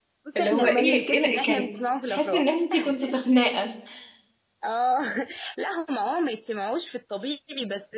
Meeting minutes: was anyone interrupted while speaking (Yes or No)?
Yes